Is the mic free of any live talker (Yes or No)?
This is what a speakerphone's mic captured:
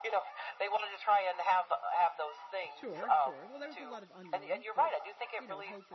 No